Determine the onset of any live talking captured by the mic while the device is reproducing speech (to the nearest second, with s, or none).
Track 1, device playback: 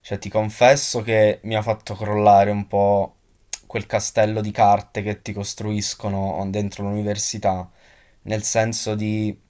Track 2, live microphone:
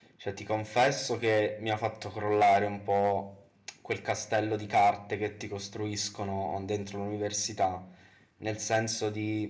none